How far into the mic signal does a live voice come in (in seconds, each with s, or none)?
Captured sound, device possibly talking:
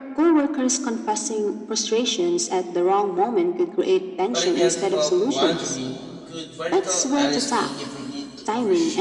4.3 s